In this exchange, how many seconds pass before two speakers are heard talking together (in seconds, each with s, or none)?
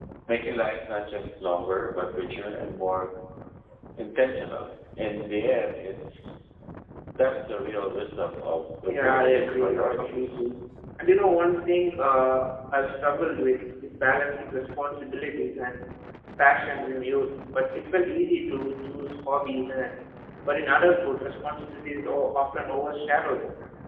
8.9 s